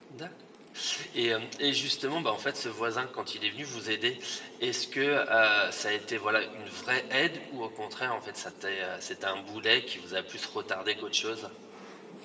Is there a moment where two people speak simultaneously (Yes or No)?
No